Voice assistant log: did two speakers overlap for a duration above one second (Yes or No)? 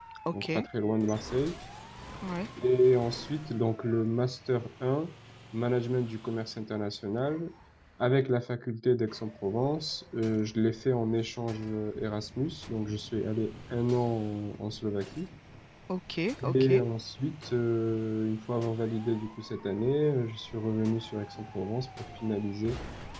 No